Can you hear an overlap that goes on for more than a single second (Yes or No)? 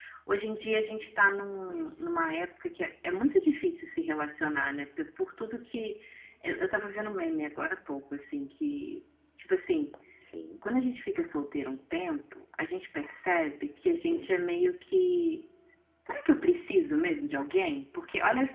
No